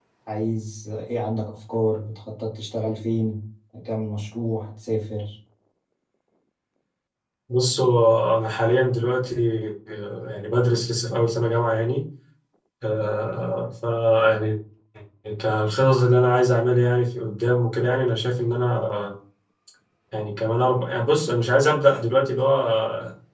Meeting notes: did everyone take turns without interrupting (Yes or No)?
Yes